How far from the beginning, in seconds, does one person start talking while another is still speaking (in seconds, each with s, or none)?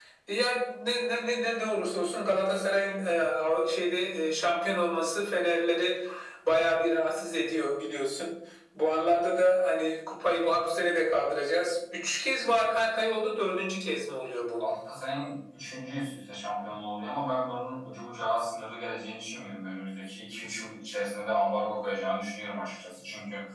none